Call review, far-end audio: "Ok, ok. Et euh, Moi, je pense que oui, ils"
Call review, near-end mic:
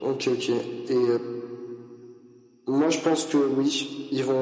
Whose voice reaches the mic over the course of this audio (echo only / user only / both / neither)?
echo only